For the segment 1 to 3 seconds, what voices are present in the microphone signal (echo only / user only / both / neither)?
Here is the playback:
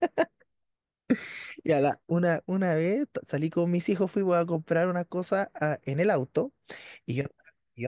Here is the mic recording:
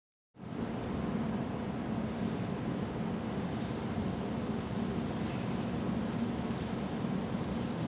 neither